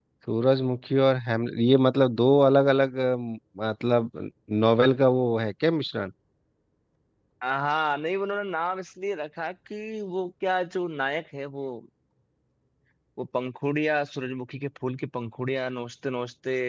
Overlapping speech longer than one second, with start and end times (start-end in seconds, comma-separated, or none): none